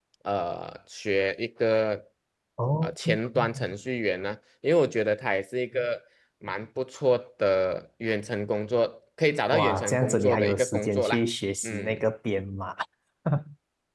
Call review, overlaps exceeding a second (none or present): present